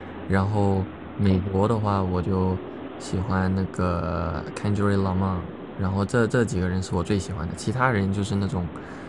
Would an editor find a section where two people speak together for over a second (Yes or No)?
No